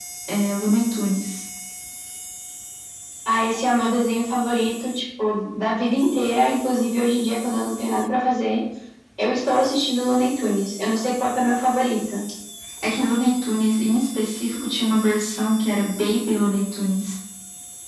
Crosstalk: none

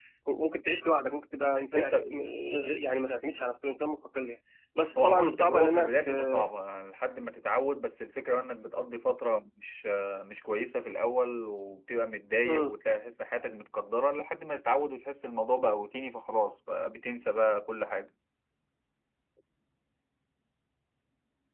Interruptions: present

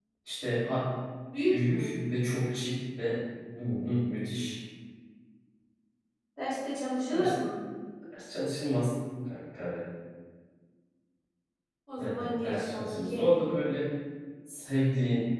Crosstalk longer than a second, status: present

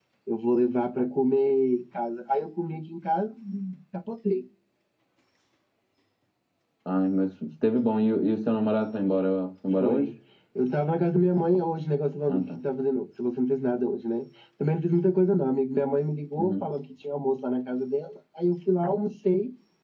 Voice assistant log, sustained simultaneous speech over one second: none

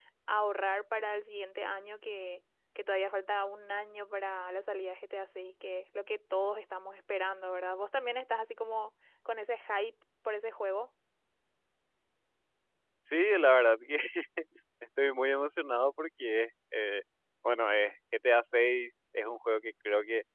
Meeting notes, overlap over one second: none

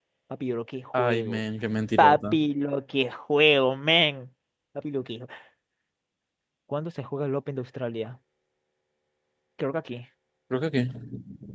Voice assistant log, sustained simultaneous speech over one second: none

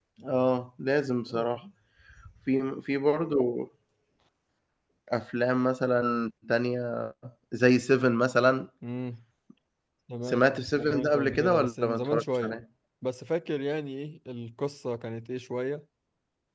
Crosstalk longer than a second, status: present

